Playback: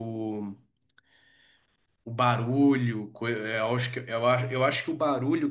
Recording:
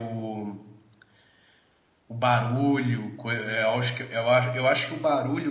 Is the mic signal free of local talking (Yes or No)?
Yes